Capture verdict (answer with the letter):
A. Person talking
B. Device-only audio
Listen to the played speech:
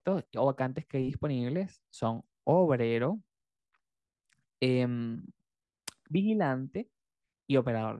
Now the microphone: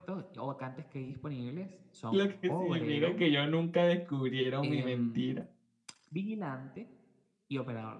A